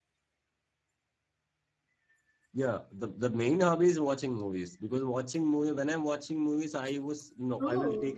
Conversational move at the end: listening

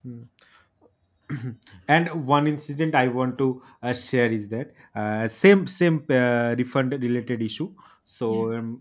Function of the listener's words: listening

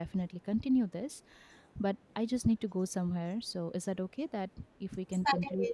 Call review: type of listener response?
taking over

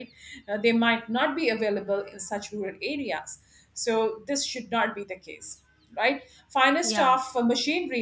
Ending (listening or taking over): listening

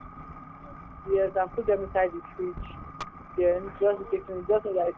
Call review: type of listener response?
listening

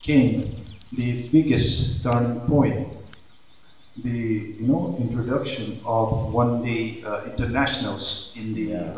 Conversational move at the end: listening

